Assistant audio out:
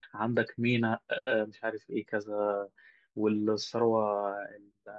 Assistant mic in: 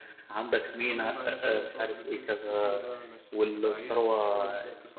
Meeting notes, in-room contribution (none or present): present